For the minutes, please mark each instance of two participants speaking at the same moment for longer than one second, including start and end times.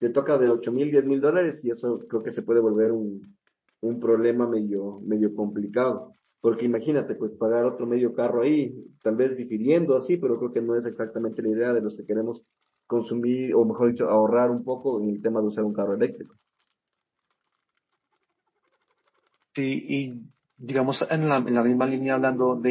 none

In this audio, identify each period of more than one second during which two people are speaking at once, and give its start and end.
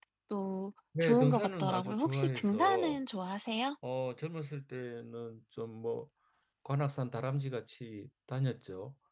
1.0-3.0

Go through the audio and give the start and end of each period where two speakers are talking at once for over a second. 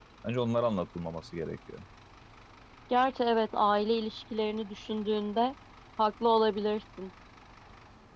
none

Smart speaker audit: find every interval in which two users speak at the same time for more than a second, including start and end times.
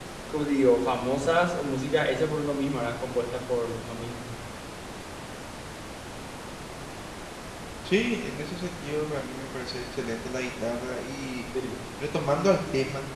none

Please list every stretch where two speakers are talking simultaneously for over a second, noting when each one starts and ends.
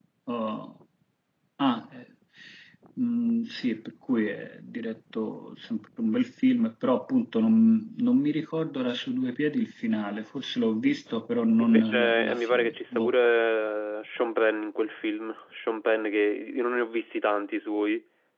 11.6-13.1

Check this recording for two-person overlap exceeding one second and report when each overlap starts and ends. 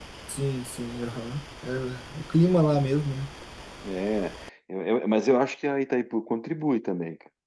none

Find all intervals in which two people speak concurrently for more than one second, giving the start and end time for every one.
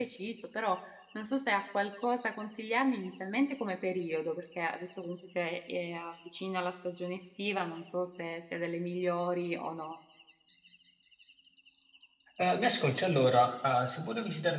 none

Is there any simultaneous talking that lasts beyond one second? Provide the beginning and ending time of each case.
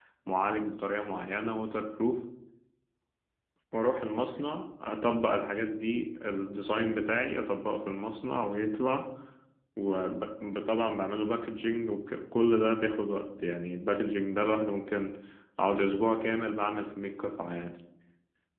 none

